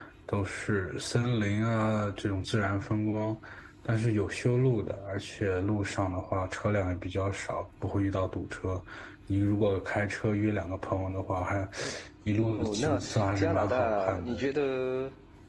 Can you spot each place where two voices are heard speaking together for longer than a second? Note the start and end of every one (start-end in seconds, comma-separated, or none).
12.6-14.3